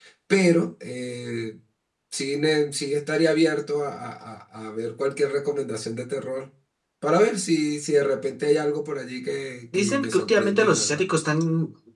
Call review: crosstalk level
present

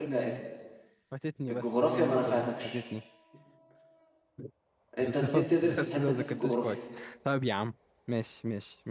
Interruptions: present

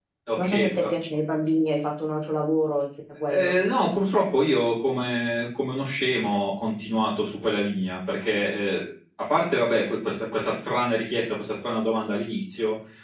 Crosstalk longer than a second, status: none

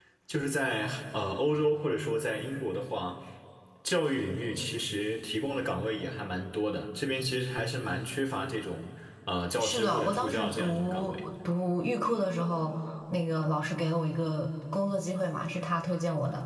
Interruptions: present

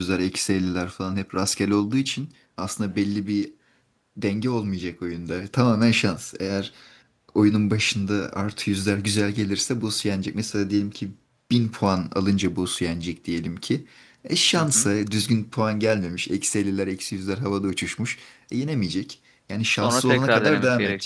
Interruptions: present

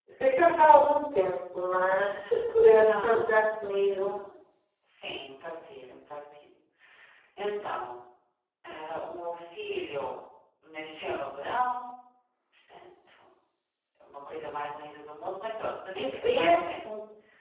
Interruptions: present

